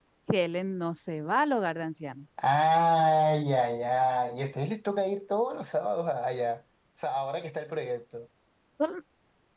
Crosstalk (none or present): none